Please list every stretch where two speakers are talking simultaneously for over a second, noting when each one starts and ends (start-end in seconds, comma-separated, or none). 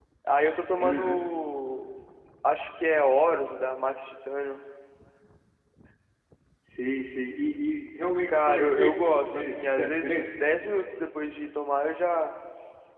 8.3-10.1